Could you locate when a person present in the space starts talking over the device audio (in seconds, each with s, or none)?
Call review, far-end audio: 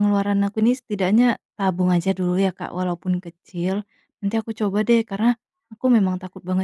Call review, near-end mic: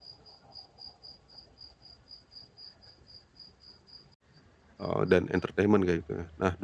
4.8 s